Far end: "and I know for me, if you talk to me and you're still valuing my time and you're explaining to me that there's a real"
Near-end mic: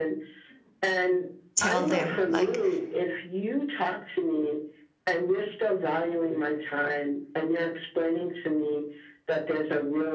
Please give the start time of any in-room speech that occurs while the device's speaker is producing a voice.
2 s

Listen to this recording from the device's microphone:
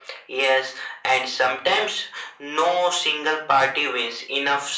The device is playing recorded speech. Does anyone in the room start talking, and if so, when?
none

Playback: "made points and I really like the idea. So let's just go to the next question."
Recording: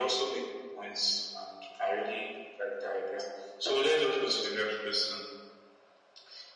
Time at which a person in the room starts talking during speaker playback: none

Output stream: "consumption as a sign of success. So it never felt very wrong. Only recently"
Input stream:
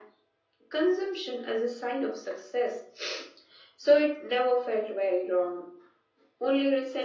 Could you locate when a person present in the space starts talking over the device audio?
none

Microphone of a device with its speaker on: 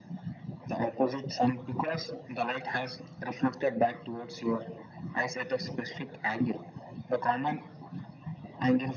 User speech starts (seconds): none

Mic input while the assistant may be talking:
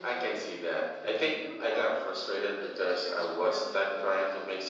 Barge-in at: none

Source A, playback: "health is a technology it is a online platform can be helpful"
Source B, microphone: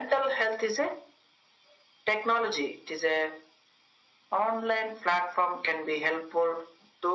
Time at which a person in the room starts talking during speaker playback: none

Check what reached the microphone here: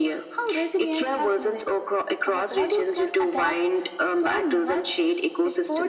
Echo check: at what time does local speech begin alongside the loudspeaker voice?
none

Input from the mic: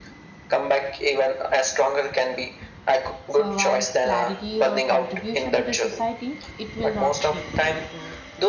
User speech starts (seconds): 3 s

